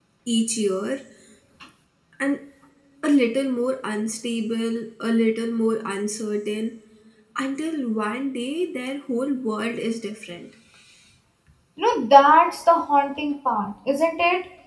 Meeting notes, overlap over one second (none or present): none